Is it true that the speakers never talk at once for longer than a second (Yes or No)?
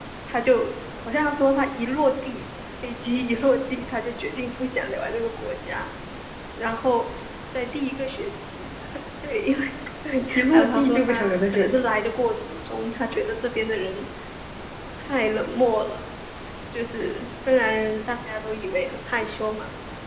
No